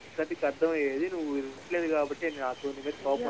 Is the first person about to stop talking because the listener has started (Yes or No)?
Yes